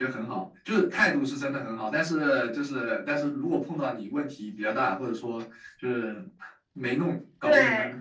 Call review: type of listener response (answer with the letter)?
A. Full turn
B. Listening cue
B